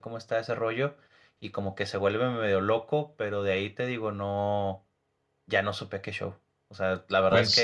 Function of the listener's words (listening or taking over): listening